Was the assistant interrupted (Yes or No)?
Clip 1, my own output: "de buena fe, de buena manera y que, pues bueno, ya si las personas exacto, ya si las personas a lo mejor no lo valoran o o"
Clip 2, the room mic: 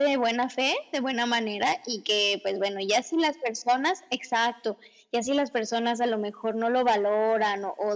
No